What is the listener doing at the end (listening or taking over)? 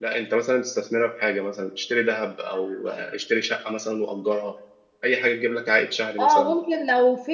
taking over